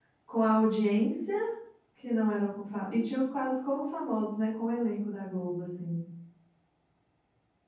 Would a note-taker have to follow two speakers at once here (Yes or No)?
No